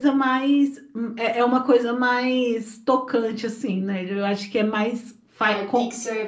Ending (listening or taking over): taking over